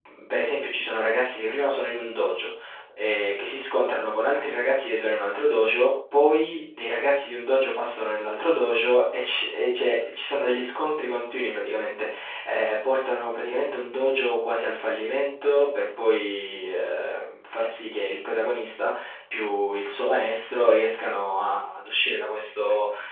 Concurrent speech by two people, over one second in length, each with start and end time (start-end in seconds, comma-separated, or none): none